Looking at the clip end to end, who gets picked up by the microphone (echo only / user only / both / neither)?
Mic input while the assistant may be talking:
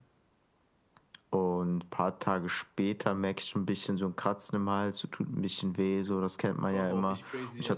both